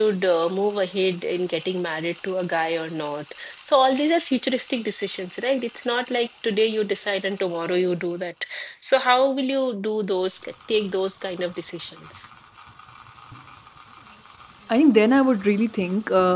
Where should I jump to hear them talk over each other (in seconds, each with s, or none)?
none